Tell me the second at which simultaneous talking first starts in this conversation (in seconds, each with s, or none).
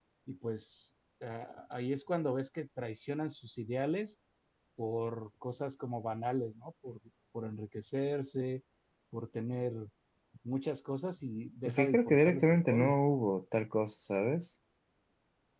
11.7 s